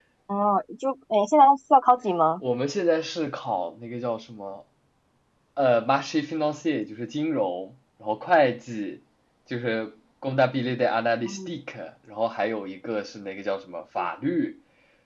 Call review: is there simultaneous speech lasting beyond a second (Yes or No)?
No